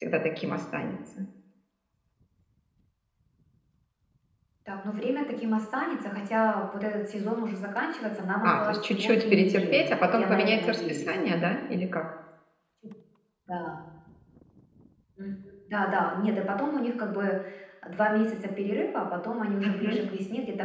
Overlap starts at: 8.4 s

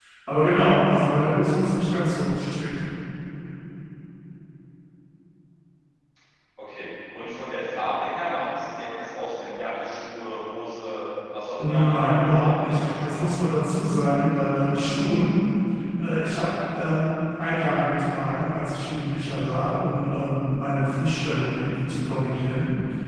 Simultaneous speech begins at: 11.6 s

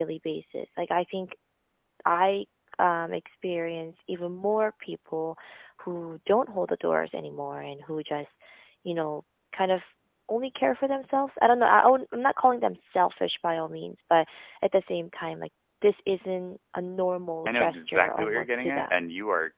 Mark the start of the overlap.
17.5 s

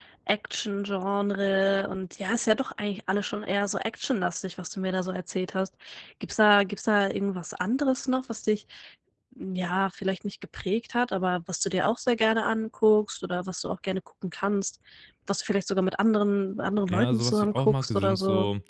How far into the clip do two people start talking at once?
16.9 s

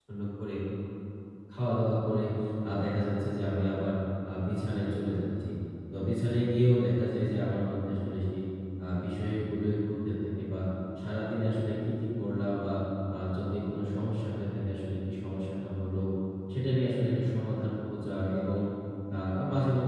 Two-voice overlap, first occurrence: none

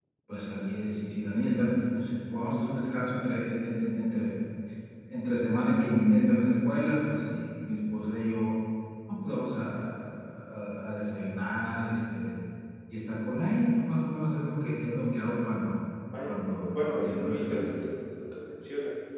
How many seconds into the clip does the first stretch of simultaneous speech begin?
16.2 s

